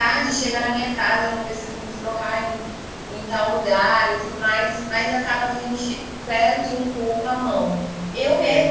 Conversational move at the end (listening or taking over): listening